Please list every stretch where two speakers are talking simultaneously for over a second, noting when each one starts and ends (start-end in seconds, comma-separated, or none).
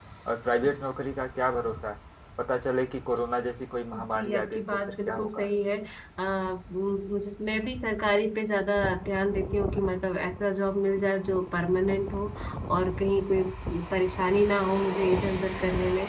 4.1-5.5